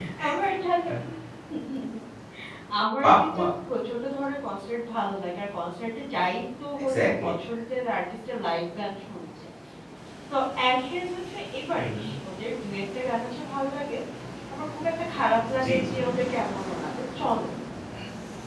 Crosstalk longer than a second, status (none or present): none